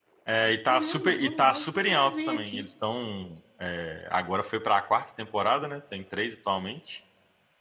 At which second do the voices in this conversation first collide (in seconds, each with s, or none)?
0.7 s